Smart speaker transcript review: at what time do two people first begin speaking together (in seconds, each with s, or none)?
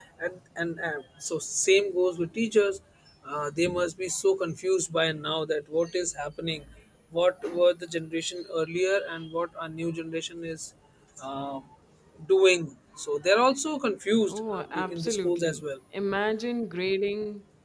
14.3 s